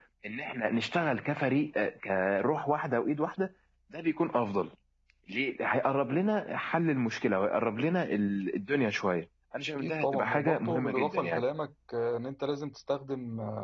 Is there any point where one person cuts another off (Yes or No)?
Yes